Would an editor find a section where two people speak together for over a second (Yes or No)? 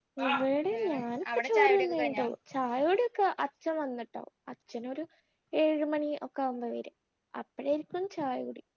Yes